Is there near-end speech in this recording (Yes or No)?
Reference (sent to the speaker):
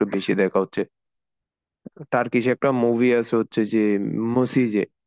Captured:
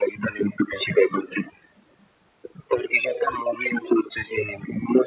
No